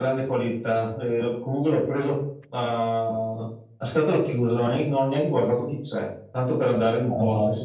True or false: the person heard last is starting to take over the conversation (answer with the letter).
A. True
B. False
B